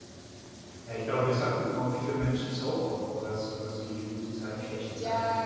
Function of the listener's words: taking over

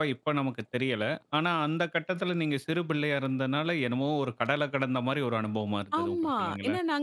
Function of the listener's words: taking over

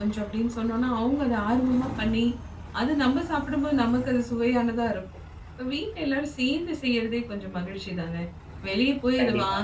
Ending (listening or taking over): listening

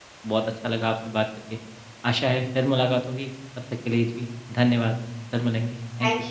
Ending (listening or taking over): taking over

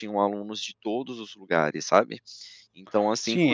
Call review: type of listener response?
taking over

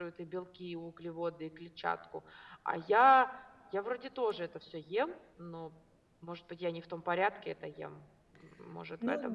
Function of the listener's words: taking over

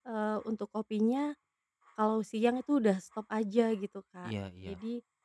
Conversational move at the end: listening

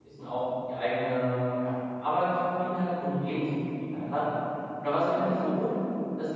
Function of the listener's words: listening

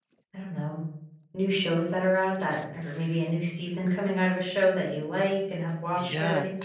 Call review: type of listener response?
taking over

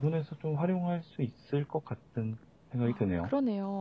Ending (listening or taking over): taking over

